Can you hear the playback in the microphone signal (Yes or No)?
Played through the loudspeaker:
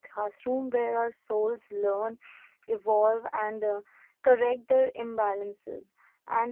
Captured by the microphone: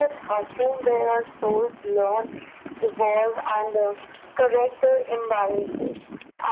Yes